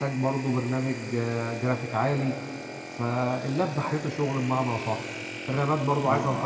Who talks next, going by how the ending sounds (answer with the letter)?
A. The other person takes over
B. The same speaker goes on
A